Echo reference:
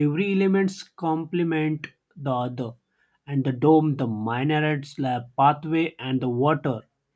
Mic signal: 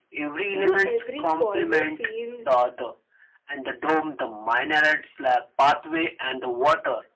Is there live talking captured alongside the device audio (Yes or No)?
Yes